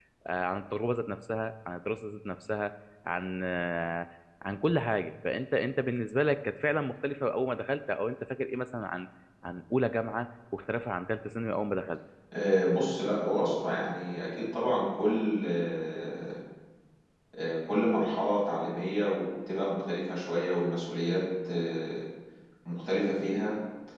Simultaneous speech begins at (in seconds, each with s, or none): none